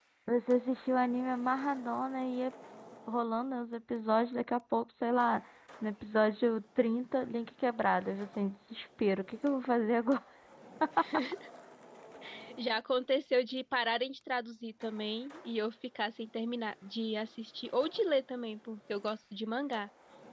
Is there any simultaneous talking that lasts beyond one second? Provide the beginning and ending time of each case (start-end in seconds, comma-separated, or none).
none